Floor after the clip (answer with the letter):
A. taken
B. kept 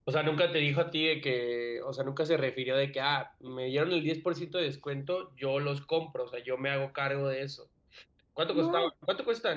B